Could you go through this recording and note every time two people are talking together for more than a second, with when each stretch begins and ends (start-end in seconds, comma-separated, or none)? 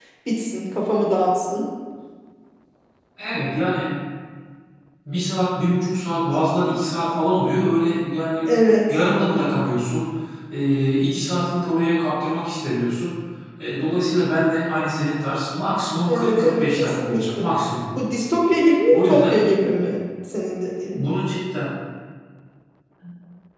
16.0-17.5